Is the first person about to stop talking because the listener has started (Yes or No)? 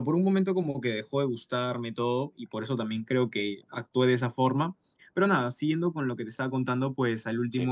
No